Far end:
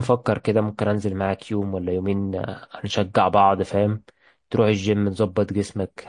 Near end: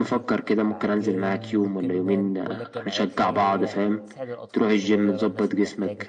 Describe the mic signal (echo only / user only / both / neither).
both